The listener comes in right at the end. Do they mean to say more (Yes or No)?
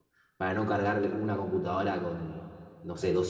No